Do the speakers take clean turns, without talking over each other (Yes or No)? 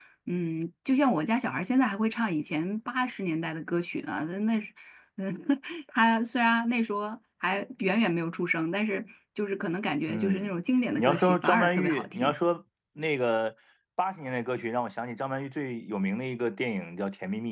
No